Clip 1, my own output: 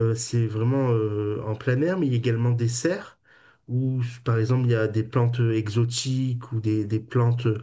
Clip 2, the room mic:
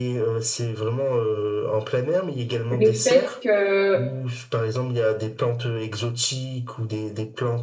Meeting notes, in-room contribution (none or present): present